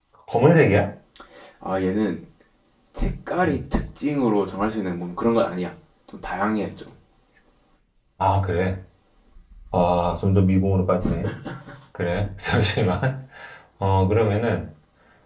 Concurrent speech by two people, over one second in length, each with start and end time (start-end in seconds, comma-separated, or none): none